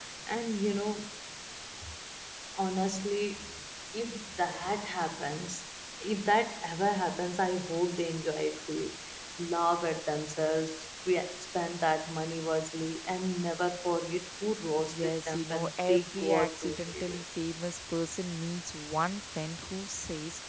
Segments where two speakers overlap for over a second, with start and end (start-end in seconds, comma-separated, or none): 14.9-17.2